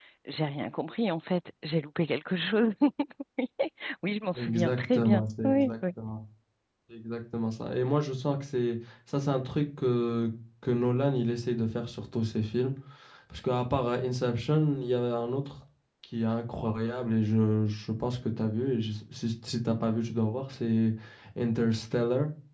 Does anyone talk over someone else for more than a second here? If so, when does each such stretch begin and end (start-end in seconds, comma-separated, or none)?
4.3-5.7